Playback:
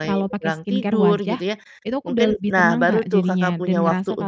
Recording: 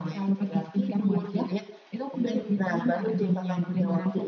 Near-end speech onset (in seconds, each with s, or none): none